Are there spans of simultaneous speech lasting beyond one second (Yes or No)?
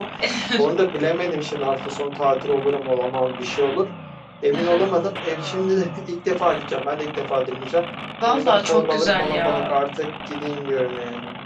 Yes